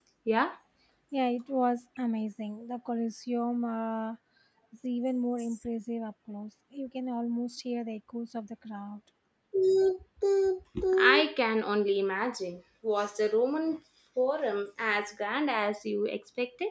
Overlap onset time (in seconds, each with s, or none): none